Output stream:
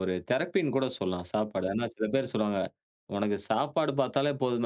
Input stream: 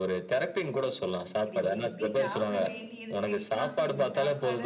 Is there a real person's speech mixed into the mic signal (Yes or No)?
Yes